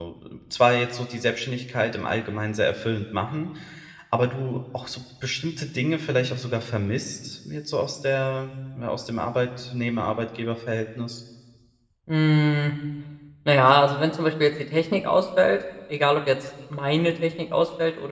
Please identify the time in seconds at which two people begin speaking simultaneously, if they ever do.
none

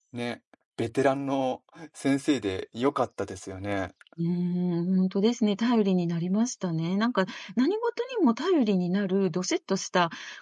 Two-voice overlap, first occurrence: none

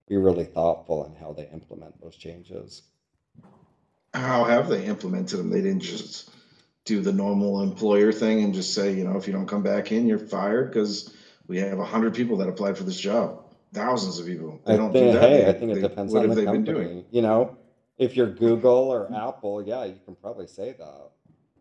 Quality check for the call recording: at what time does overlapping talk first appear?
14.7 s

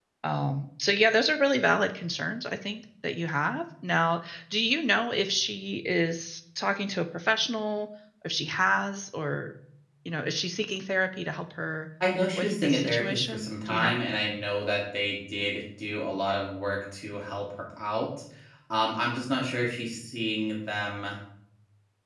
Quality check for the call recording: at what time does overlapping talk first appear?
12.4 s

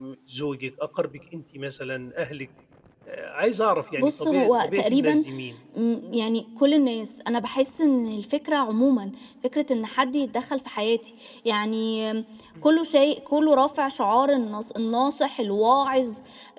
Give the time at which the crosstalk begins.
4.0 s

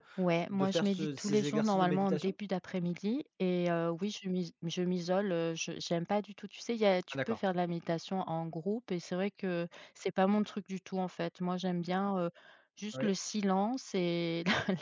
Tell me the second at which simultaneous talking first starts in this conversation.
0.5 s

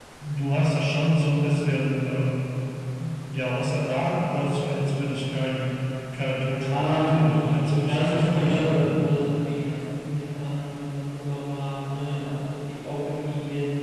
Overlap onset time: 6.4 s

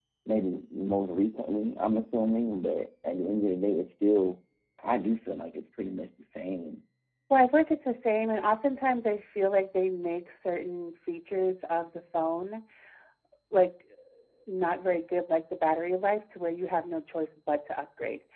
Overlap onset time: none

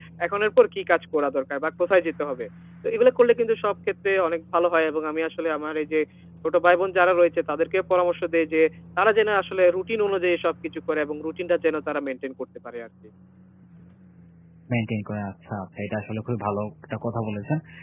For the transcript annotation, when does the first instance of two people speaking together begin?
none

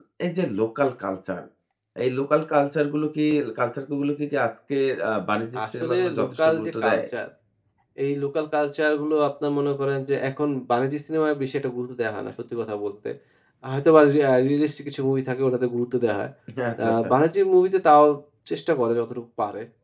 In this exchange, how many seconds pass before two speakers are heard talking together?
5.8 s

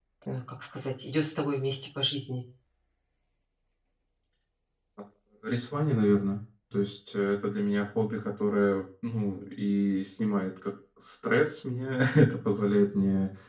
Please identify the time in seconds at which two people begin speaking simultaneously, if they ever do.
none

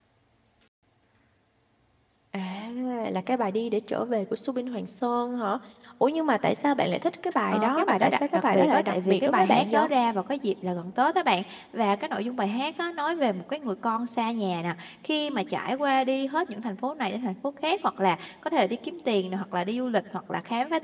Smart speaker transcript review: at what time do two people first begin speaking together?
7.5 s

